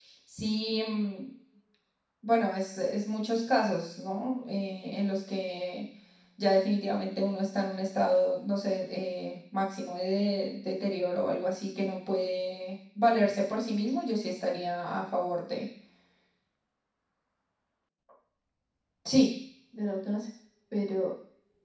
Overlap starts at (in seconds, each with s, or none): none